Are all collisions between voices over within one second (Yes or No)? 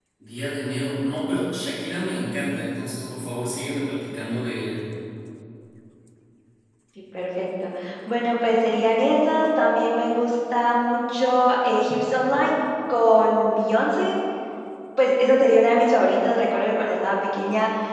Yes